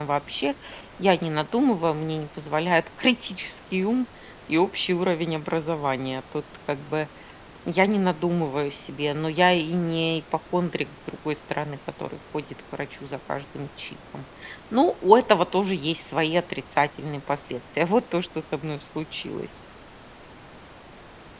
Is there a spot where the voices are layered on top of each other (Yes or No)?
No